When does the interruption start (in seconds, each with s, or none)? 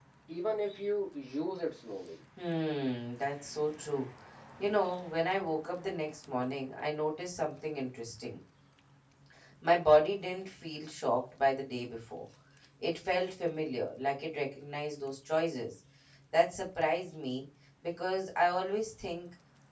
none